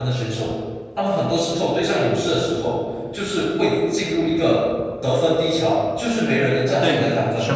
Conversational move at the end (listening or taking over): taking over